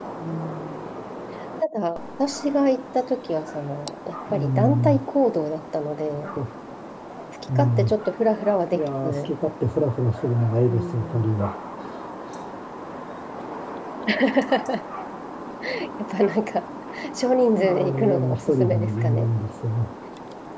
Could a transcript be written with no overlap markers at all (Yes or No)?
No